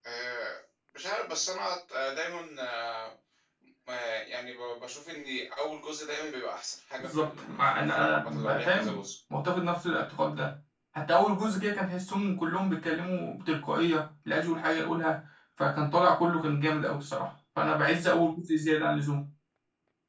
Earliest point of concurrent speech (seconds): 7.0 s

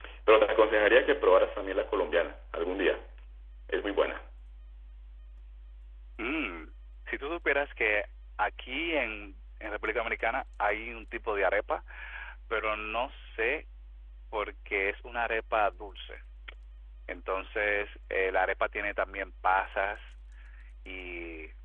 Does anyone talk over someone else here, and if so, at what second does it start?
none

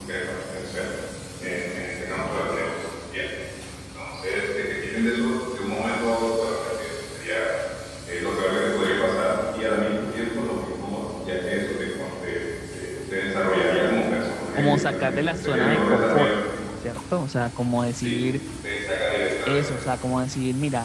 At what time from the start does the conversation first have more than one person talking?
14.6 s

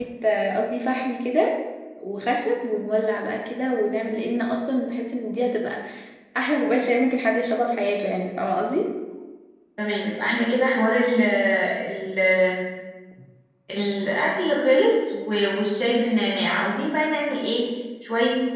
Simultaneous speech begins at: none

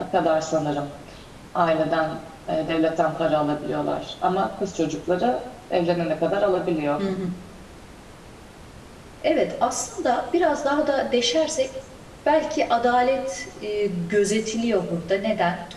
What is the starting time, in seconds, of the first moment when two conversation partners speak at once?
none

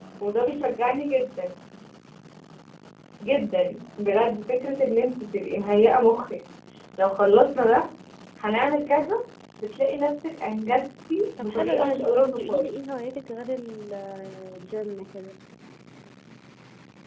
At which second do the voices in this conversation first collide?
11.4 s

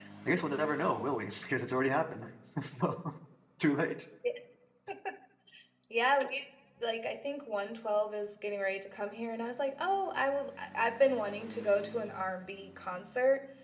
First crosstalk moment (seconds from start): none

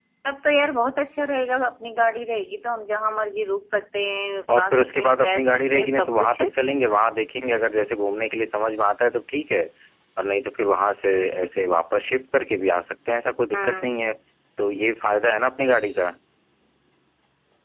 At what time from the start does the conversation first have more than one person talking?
4.5 s

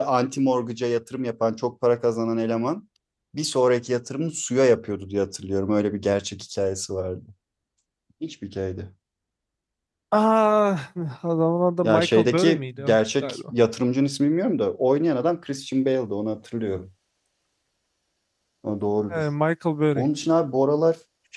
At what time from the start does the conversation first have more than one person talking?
11.8 s

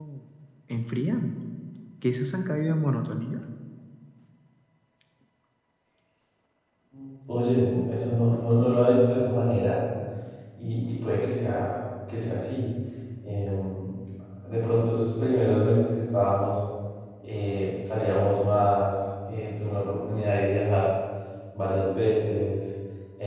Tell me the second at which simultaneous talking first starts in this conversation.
none

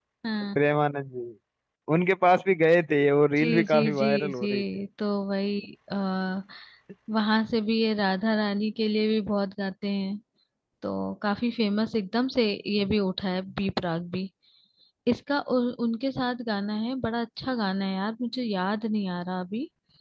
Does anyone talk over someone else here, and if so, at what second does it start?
3.4 s

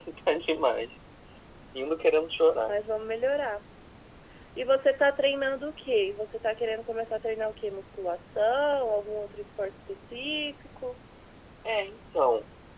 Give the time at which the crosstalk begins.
none

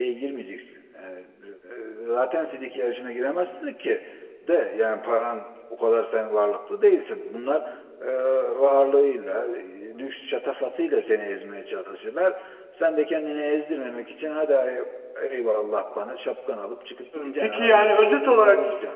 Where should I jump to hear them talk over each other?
17.1 s

